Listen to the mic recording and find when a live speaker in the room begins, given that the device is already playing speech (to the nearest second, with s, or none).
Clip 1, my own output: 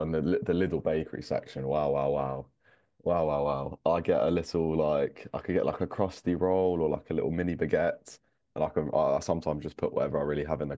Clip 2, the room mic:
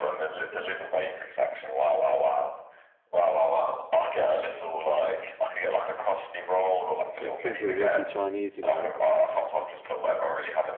7 s